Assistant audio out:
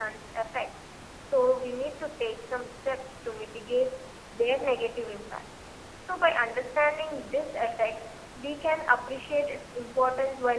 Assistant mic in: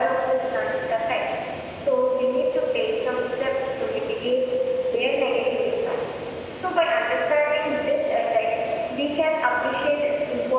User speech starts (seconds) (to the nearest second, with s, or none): none